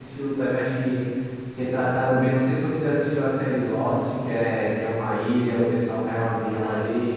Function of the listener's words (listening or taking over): taking over